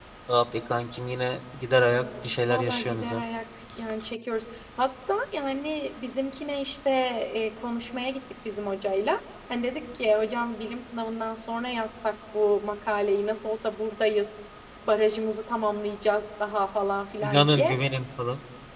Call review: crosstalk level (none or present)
present